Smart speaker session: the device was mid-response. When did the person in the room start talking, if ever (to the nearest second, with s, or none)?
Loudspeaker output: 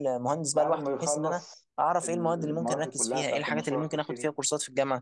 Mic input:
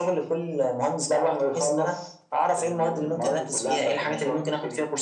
none